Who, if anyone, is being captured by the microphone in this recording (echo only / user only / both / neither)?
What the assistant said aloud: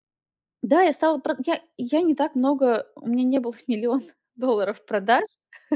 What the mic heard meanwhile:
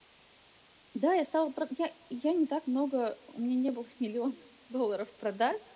echo only